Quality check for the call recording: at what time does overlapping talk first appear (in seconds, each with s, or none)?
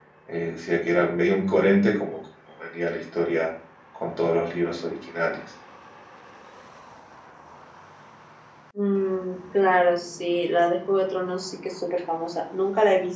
none